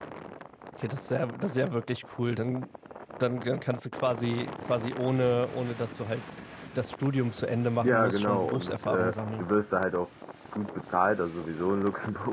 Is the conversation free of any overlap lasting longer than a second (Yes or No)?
No